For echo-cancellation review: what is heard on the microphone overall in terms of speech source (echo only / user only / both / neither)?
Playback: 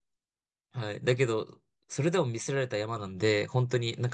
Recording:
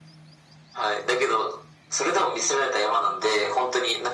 echo only